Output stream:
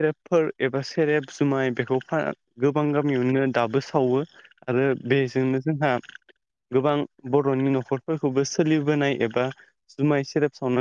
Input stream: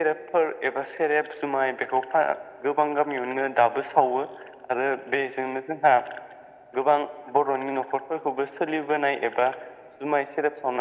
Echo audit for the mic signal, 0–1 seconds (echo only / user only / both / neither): echo only